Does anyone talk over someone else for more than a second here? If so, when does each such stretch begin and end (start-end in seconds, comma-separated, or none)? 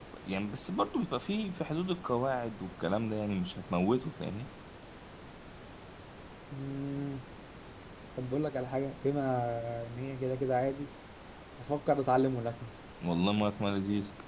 none